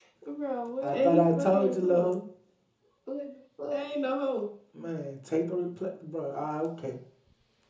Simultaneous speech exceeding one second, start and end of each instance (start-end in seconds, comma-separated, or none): 0.8-2.1